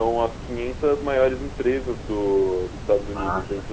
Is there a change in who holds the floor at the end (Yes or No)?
No